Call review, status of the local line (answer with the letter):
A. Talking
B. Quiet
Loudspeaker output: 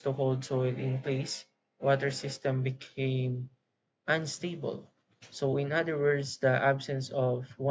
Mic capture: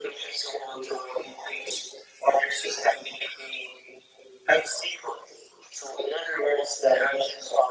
B